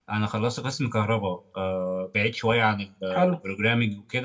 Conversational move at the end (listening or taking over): listening